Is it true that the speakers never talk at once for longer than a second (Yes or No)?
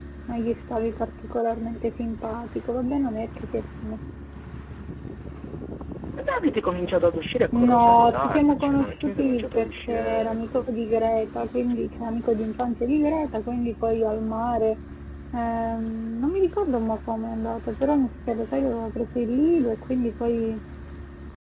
No